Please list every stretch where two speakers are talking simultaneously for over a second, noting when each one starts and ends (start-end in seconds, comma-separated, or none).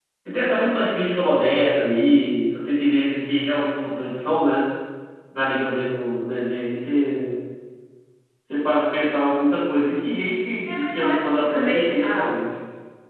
10.7-12.3